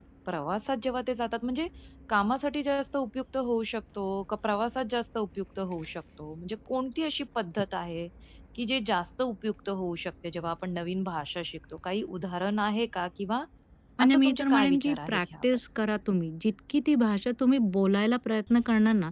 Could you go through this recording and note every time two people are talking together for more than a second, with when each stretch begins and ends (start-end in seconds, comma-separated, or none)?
14.1-15.4